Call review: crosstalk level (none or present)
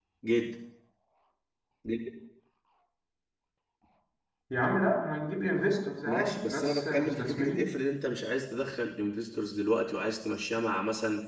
present